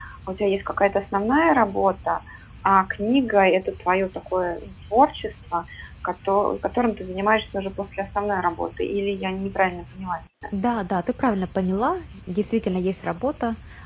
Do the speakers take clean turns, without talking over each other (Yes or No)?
Yes